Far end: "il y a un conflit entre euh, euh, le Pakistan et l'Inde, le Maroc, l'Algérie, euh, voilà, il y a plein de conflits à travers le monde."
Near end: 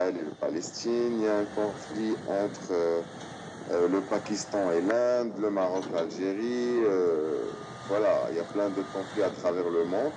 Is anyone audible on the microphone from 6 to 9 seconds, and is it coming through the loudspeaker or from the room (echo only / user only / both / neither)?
echo only